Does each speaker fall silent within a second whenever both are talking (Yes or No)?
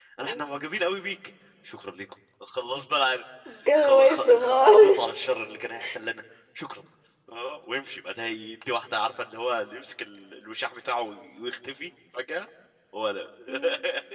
No